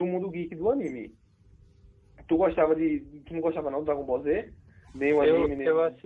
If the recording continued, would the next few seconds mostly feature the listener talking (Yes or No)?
Yes